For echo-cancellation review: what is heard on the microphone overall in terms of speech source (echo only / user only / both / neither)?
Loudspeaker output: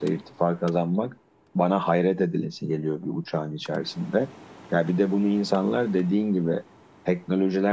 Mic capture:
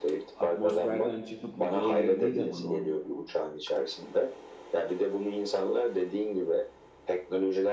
both